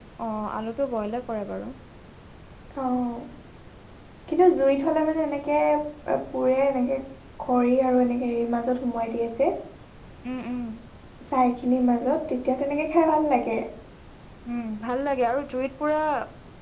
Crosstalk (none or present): none